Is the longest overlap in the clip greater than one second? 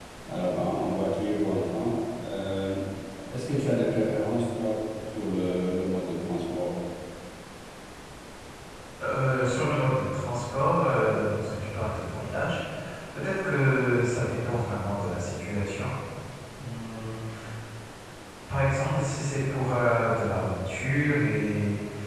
No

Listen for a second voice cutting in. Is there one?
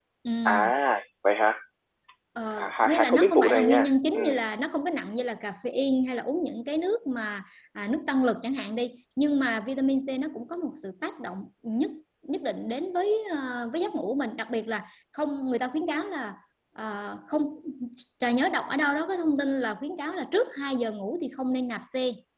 Yes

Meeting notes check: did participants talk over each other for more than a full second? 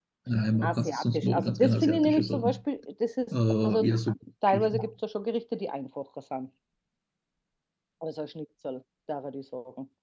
Yes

